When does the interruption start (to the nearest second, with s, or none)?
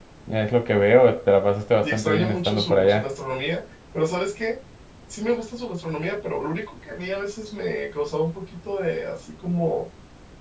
2 s